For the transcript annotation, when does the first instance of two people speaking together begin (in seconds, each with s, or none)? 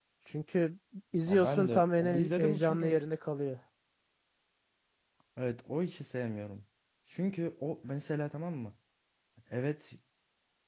1.3 s